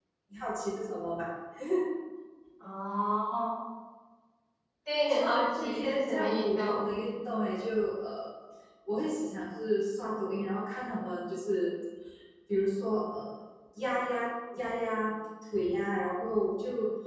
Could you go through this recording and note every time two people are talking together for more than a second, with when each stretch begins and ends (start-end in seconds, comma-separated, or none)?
5.1-6.8